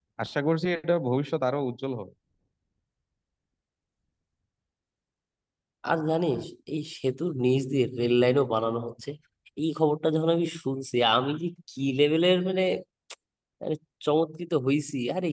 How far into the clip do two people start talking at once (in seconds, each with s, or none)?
none